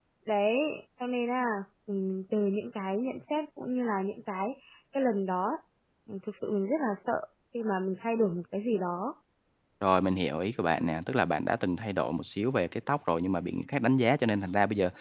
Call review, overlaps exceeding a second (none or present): none